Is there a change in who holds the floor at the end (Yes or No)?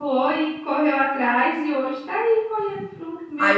Yes